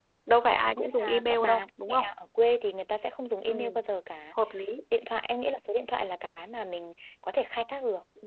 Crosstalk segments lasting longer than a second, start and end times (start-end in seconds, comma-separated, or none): 0.8-2.0